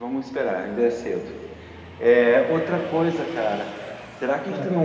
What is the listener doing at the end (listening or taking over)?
listening